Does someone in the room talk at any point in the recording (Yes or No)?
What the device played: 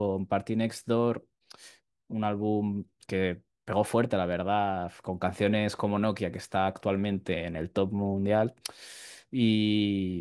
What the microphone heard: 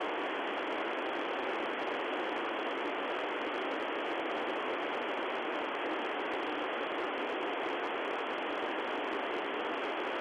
No